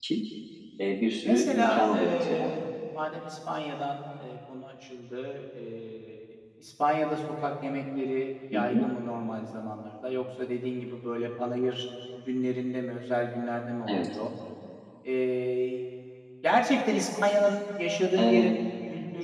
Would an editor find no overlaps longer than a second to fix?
No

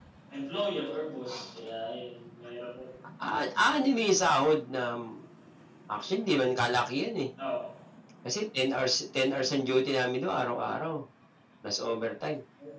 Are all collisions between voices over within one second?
Yes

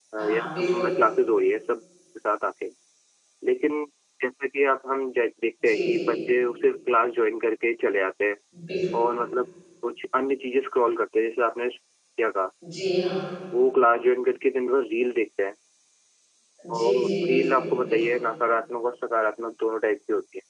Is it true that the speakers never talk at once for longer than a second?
No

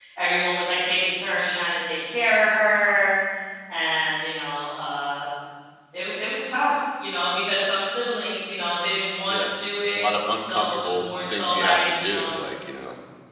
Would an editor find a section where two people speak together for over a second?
Yes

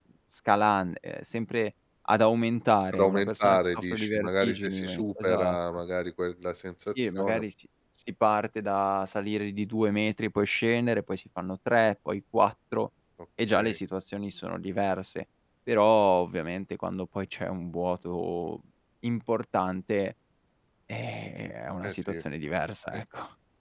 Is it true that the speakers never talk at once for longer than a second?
No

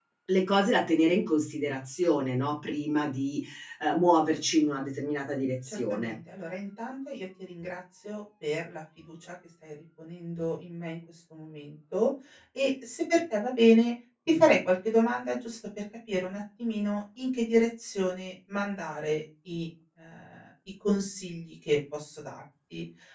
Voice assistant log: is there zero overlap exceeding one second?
Yes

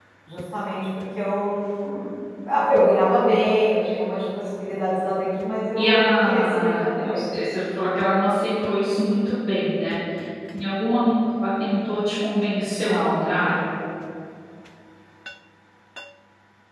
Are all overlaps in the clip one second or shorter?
No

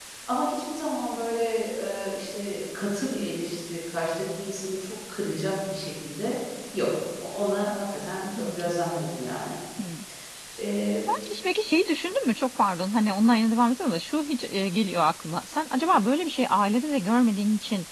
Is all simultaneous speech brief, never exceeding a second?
Yes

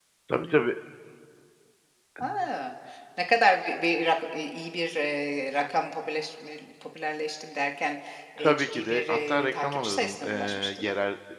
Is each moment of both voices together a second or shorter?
No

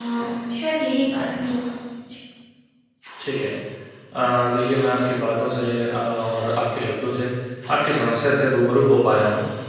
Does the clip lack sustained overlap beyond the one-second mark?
Yes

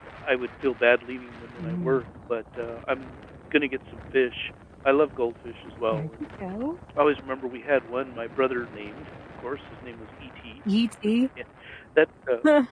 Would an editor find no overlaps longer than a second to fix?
Yes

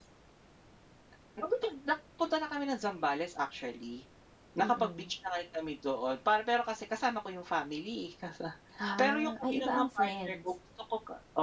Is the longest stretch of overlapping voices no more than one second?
No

